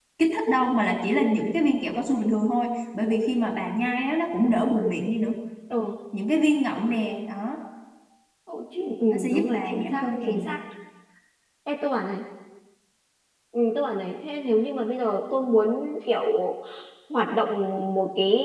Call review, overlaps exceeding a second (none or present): present